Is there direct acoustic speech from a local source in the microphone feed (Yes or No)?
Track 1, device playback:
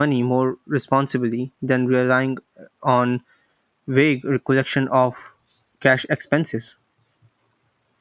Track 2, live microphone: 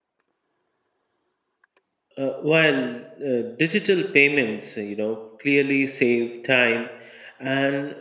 Yes